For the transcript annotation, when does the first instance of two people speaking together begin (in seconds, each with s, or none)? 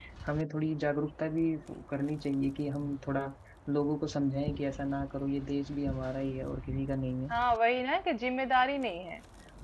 none